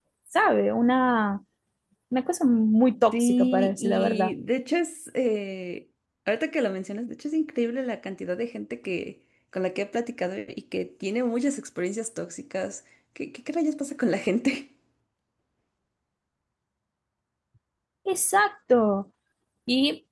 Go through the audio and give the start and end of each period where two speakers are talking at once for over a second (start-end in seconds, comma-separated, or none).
3.1-4.3